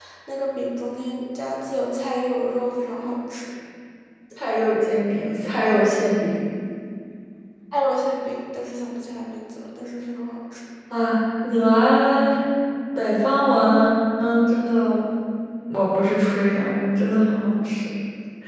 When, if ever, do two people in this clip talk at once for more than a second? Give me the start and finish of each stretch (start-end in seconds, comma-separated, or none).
none